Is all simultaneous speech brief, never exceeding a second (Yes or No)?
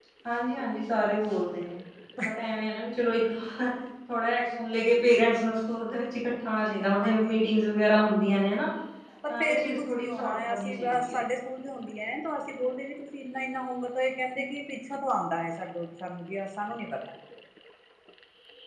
No